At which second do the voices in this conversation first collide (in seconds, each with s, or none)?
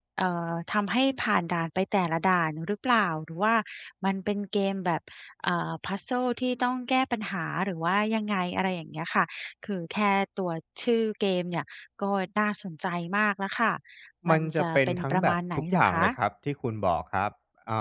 14.3 s